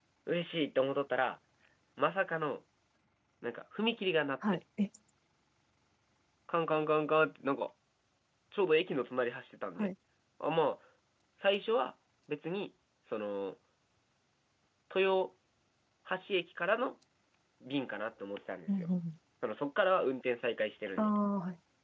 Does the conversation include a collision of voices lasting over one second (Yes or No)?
No